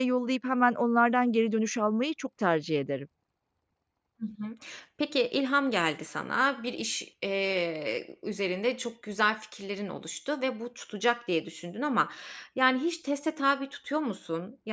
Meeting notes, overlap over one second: none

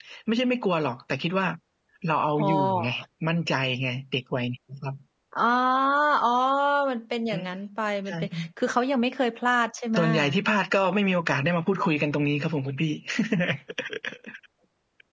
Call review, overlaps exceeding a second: none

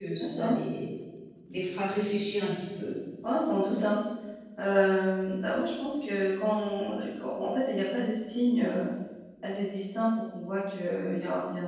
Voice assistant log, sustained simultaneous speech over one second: none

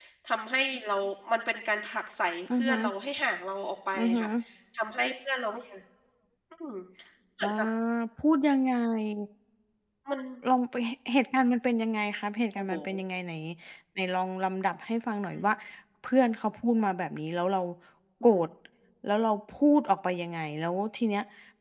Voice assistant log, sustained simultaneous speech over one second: none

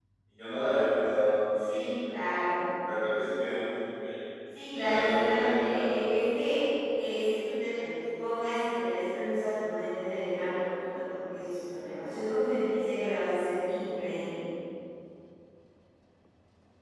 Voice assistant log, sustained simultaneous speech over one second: present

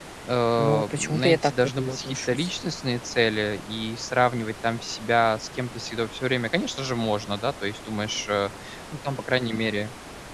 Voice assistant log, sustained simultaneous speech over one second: present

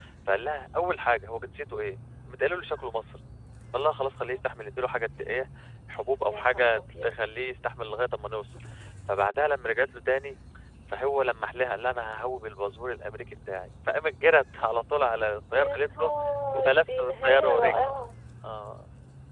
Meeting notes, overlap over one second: present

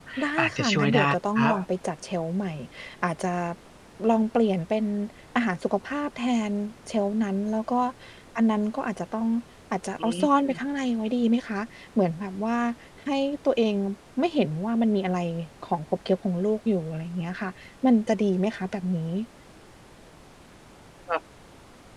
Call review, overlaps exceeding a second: present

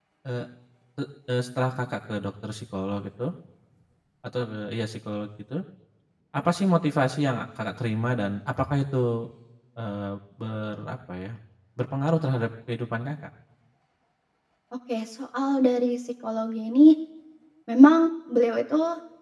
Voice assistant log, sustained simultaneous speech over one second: none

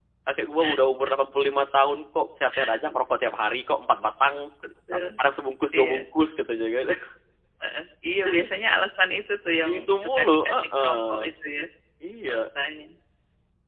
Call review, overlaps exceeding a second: present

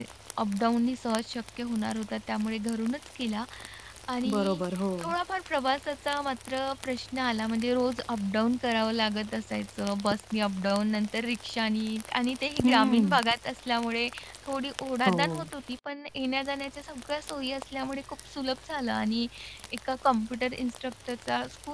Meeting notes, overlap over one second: none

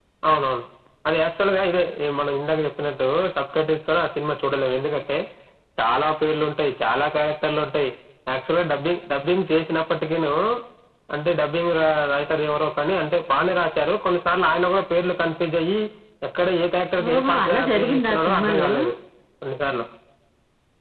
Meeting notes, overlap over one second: present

